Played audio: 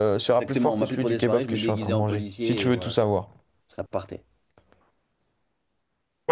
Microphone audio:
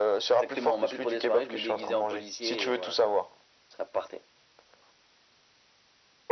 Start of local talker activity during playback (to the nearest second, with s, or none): none